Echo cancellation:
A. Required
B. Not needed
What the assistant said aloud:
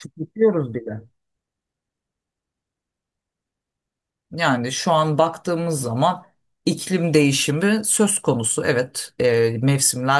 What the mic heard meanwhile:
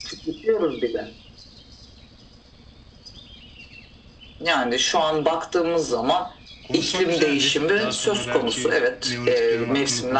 A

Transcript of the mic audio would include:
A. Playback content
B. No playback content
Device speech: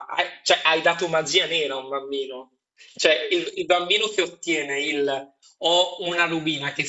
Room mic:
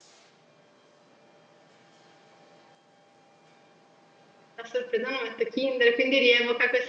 B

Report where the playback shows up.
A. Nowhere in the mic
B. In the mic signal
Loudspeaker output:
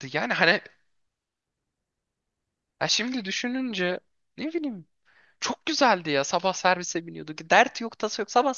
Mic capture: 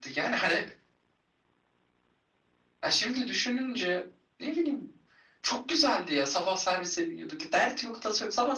B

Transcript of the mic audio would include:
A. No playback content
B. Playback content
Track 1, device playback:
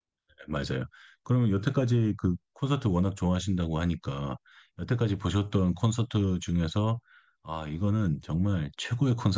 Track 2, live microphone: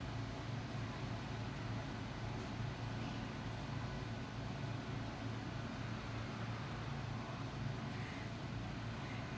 A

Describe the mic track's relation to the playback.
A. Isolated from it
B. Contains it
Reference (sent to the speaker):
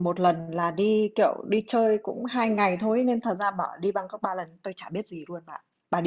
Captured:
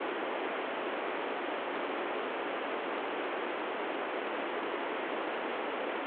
A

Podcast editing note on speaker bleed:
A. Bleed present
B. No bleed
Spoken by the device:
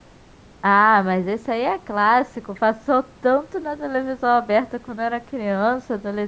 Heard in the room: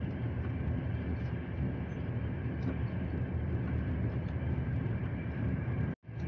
B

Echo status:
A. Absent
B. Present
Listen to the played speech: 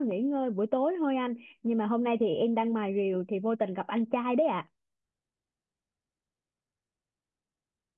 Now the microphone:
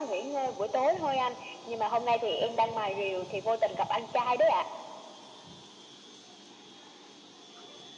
B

